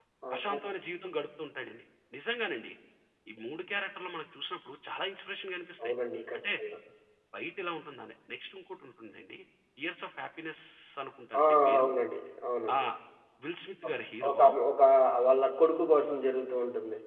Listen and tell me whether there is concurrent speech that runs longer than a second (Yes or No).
No